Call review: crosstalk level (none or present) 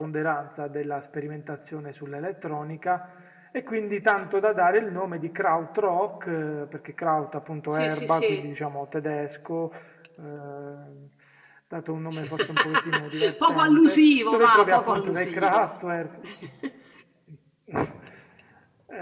present